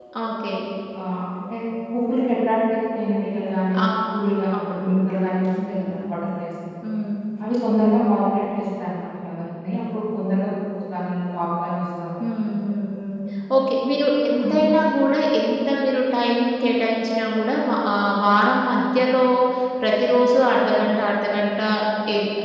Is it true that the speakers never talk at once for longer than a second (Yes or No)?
Yes